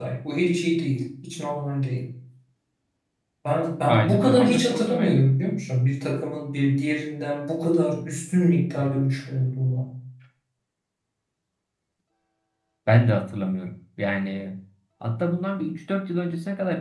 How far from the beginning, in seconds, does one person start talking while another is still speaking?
3.9 s

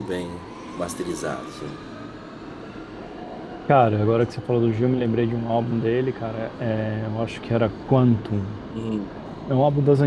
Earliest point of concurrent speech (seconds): none

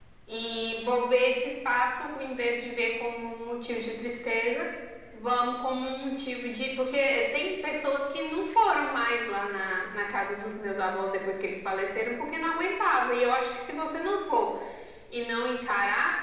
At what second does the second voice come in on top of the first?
none

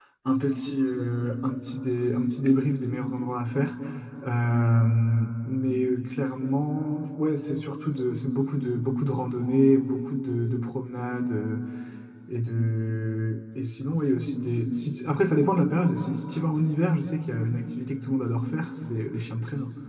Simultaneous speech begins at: none

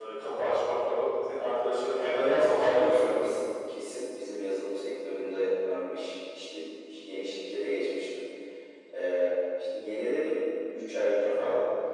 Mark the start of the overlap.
1.9 s

